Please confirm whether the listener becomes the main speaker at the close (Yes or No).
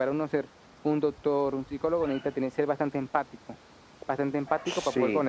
No